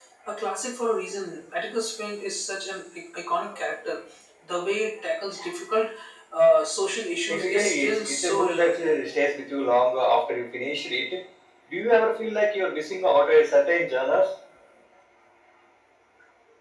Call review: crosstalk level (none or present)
present